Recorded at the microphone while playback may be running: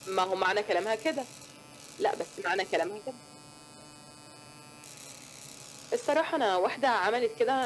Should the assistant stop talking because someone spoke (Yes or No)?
No